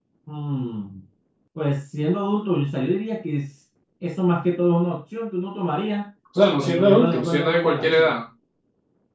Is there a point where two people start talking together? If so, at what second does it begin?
6.6 s

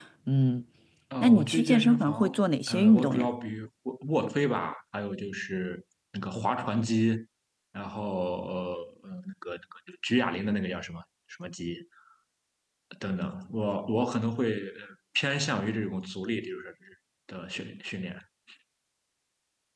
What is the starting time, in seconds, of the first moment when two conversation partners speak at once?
1.2 s

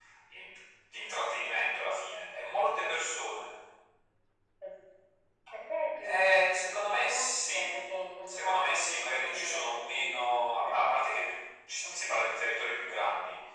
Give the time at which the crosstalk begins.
6.0 s

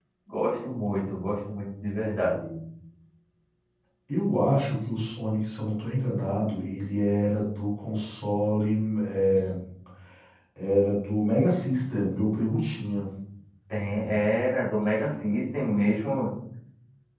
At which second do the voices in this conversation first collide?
none

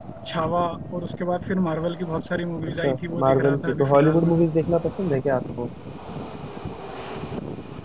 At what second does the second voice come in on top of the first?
2.7 s

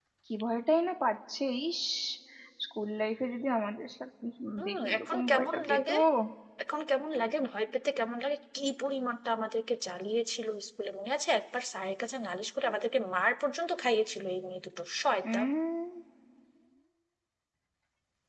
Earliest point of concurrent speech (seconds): 4.7 s

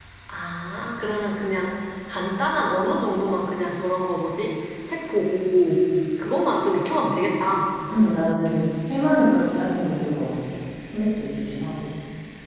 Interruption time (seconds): none

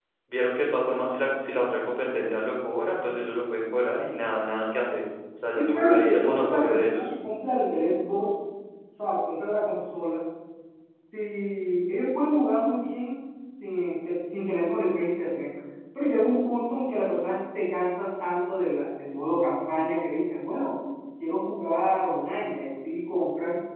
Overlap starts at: 5.6 s

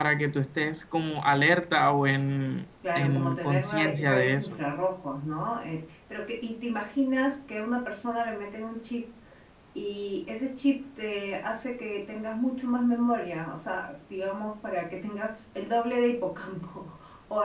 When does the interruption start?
2.8 s

